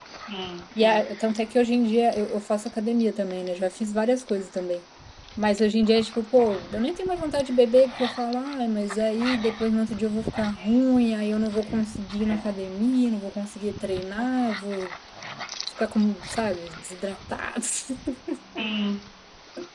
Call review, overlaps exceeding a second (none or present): none